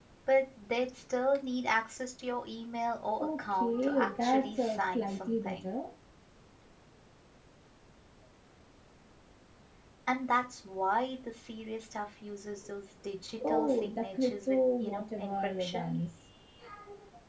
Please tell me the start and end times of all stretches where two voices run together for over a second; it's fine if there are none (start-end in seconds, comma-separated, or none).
3.2-5.7, 13.5-15.9